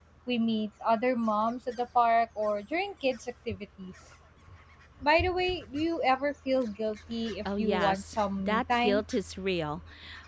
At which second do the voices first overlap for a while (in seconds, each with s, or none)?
7.4 s